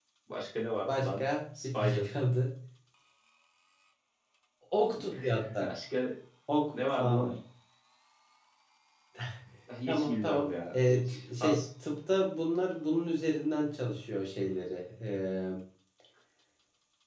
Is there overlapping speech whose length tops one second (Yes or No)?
Yes